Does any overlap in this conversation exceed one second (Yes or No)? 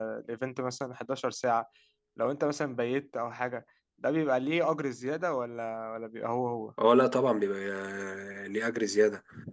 No